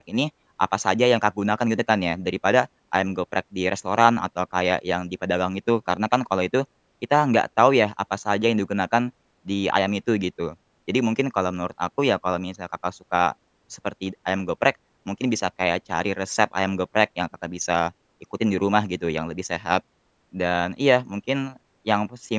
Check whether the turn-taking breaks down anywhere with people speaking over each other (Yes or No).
No